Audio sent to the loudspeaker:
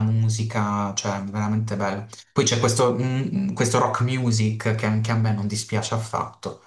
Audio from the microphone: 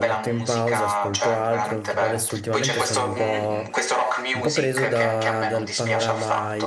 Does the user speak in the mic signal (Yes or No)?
Yes